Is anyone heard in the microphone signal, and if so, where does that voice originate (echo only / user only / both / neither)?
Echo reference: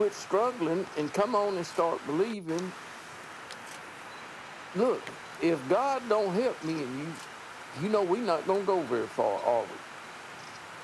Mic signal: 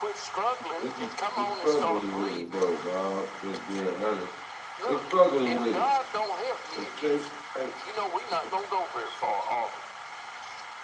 both